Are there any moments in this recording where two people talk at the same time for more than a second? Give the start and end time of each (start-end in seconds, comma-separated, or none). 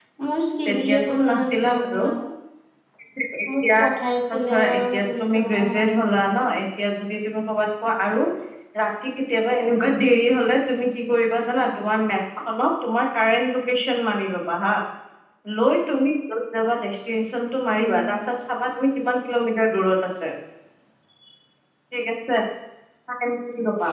0.7-2.0, 4.5-6.1